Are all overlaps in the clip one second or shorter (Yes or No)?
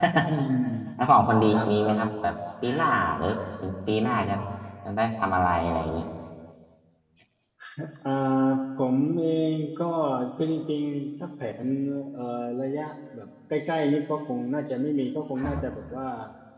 Yes